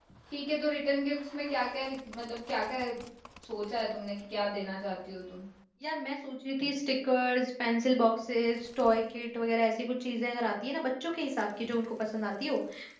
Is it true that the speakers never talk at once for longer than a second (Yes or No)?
Yes